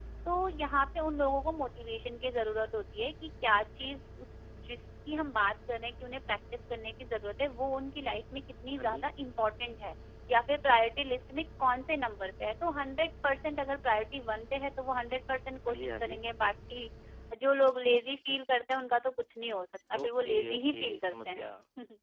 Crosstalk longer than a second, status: present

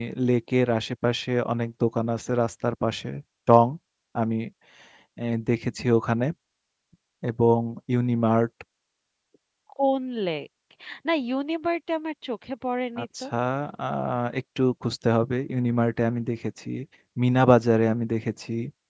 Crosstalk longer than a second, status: none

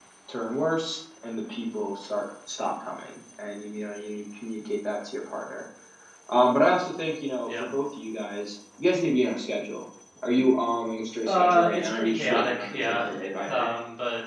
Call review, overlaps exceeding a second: present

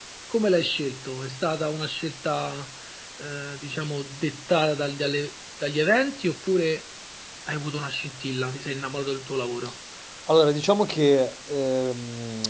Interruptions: none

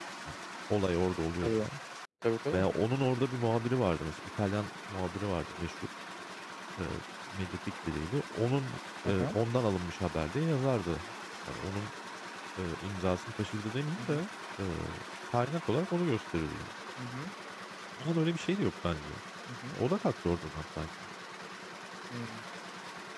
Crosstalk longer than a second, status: none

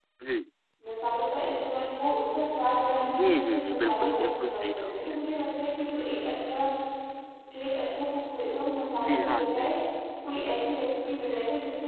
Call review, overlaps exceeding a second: present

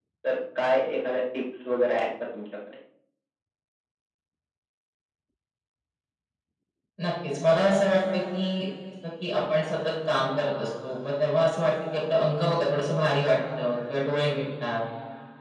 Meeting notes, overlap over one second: none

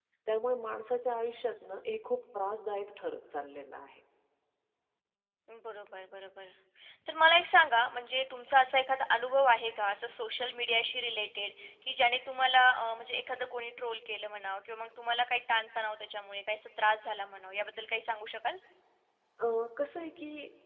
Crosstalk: none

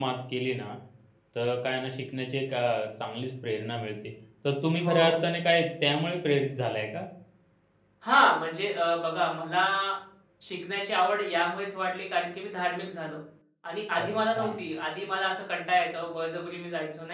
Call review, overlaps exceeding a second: none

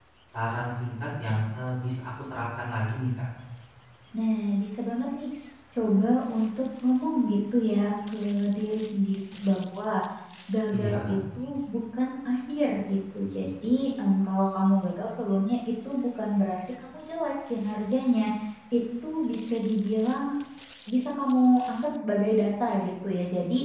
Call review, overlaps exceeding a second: none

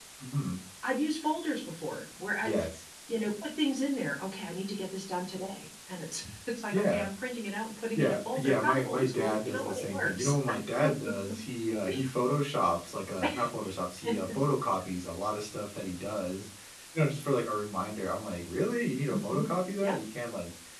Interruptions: present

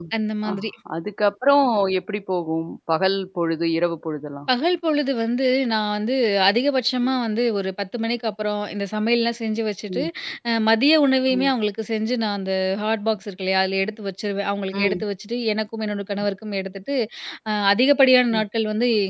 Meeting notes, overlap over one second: none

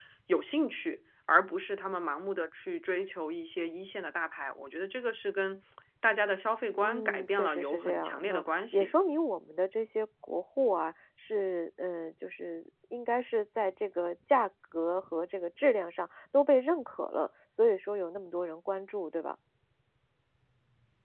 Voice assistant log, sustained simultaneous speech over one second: present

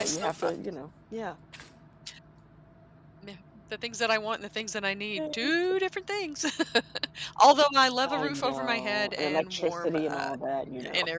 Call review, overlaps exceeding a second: present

